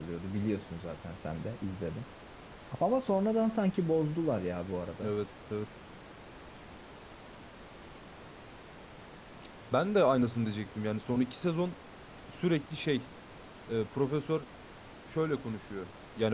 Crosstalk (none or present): none